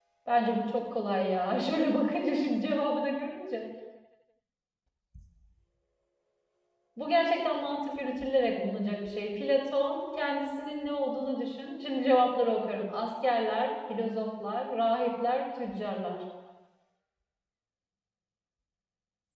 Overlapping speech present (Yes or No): No